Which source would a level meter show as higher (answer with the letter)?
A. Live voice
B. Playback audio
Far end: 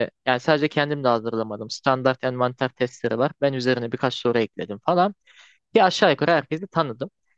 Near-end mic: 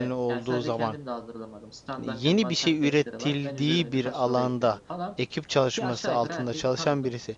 A